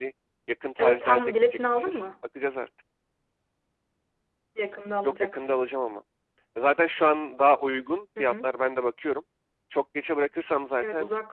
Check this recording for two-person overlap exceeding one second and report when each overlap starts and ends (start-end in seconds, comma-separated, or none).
0.8-2.1